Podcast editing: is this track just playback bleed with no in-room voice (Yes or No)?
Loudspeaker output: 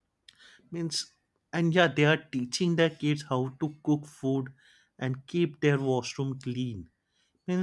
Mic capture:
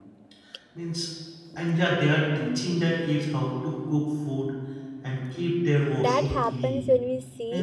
No